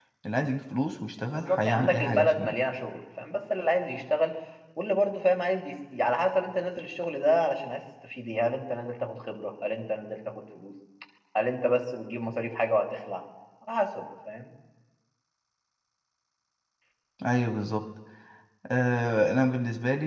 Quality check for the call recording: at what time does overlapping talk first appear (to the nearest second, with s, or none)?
1 s